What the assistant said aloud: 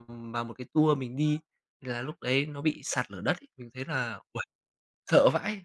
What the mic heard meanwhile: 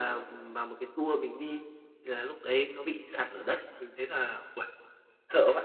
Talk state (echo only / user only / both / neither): echo only